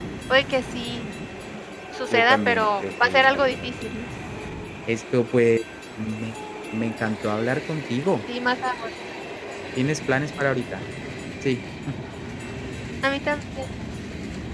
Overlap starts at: 2 s

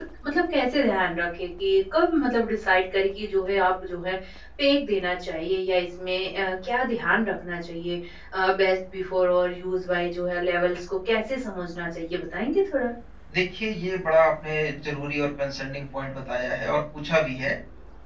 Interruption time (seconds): none

